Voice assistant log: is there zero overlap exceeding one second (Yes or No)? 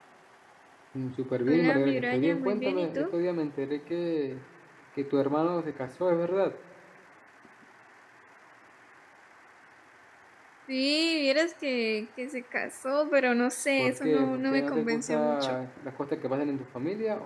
No